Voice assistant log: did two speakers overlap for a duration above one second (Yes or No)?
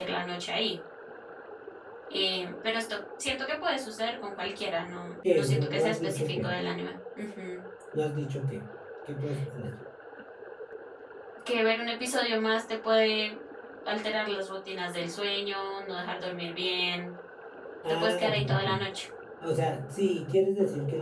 Yes